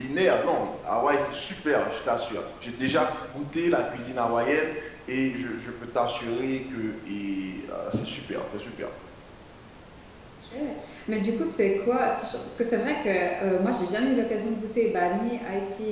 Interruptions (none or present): none